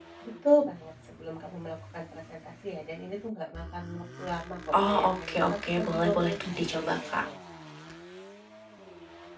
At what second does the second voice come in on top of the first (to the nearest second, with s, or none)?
5 s